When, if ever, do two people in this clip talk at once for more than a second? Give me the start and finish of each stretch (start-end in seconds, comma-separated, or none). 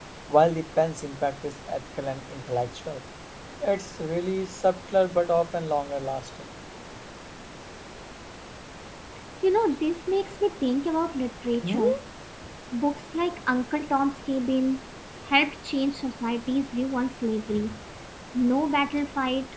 none